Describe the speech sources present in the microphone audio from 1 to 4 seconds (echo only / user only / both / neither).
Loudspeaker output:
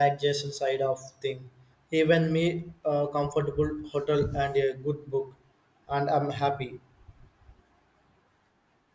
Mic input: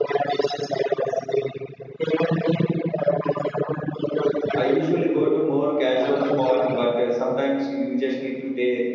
echo only